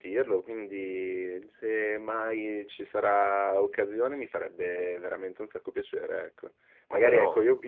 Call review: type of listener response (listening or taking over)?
listening